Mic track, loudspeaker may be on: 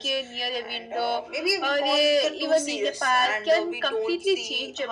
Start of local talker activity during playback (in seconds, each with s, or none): none